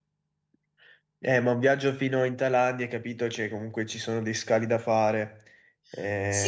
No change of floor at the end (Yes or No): No